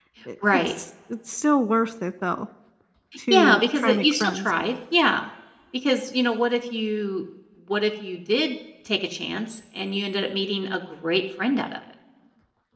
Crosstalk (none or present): present